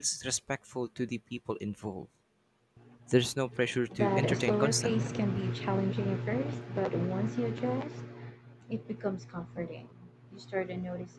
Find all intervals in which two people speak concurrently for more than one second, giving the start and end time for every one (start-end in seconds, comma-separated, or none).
4.0-5.2